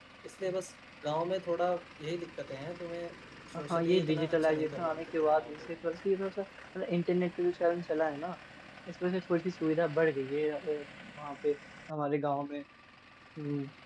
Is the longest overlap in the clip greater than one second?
Yes, from 3.7 s

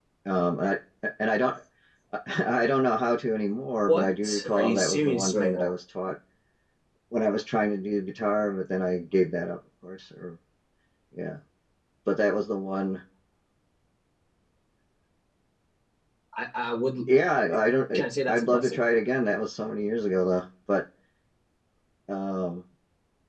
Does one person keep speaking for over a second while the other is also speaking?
Yes, from 3.9 s

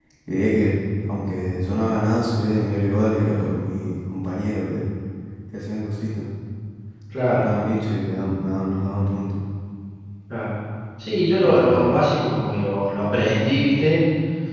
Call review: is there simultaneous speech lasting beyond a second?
No

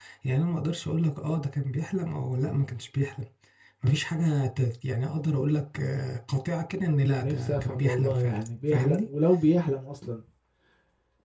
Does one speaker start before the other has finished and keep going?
Yes, from 7.2 s

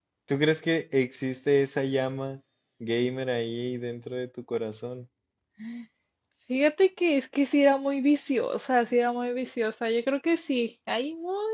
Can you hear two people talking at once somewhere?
No

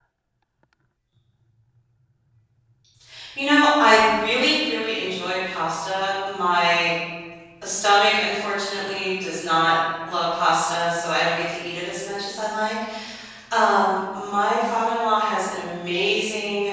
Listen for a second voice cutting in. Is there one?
No

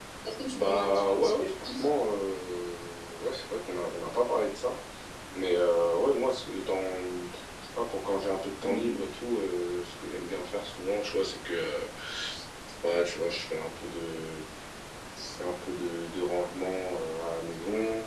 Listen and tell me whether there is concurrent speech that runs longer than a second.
Yes, from 0.5 s

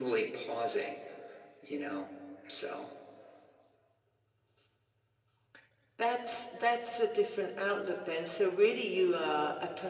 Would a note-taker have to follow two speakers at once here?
No

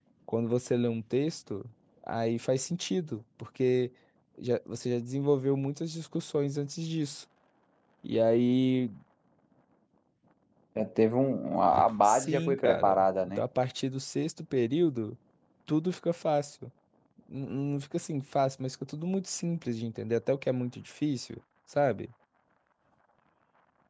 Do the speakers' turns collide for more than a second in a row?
Yes, from 12.0 s

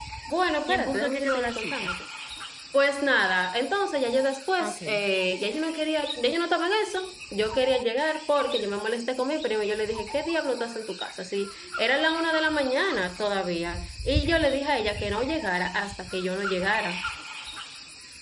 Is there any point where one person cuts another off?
Yes, from 0.7 s

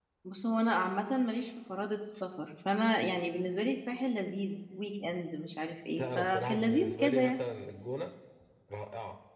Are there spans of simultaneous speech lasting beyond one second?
Yes, from 6.0 s

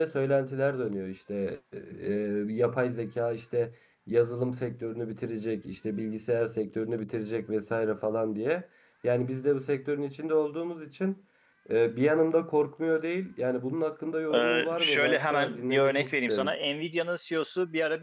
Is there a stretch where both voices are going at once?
Yes, from 14.3 s

